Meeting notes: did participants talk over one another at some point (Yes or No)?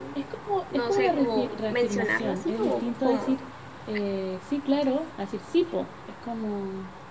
Yes